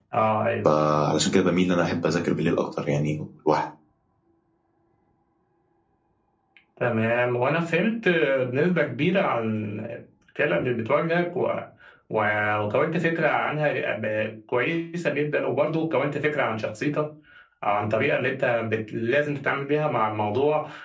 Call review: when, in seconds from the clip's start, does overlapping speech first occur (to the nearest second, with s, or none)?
none